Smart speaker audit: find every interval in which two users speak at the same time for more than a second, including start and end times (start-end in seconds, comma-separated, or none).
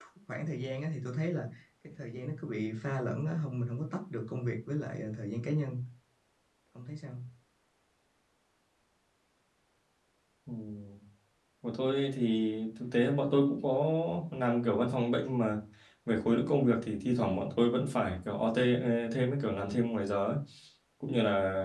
none